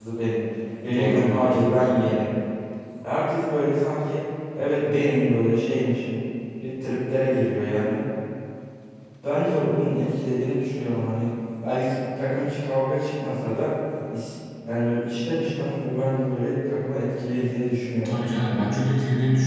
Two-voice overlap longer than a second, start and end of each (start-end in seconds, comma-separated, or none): 0.9-2.2